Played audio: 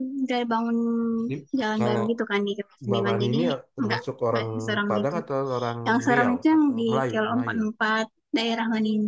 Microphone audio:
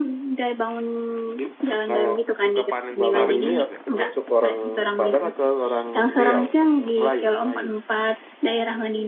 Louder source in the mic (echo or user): echo